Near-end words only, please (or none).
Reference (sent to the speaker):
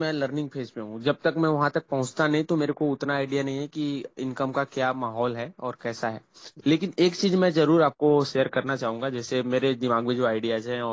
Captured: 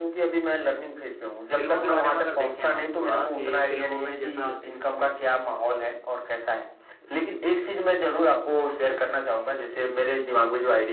फिल्मों के बारे में अगर देखें हम थोड़ा कि फिल्मों में जैसा